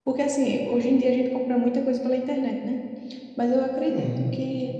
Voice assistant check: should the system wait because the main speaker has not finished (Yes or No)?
Yes